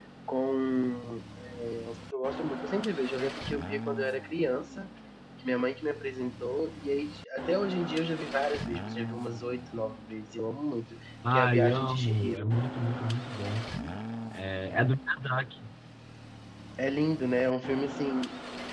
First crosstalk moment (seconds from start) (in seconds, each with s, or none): 11.2 s